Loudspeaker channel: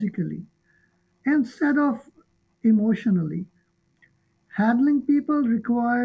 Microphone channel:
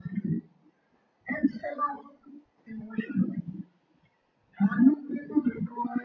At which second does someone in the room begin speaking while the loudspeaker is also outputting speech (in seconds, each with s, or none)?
none